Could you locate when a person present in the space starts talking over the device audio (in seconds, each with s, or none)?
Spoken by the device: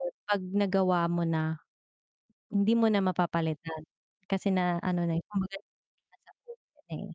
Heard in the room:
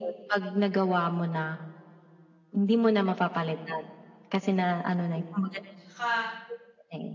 5.8 s